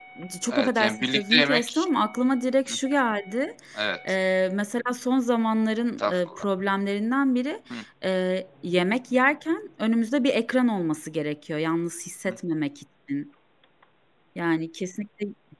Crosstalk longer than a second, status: present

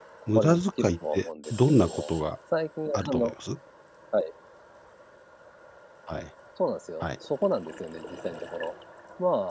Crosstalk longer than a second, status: present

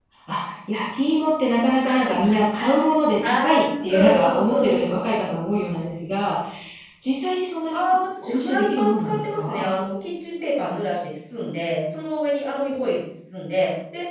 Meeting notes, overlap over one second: present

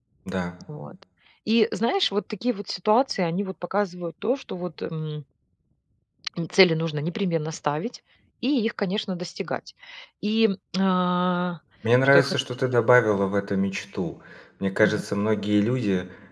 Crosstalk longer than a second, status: none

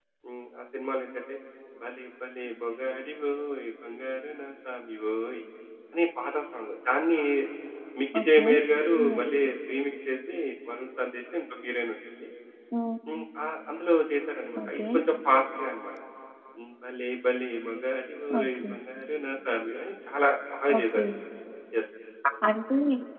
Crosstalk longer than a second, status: none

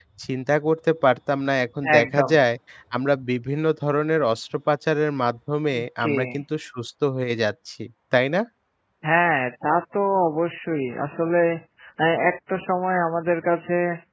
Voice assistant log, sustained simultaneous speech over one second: none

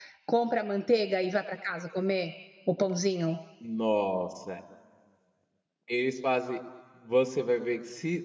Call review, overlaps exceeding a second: none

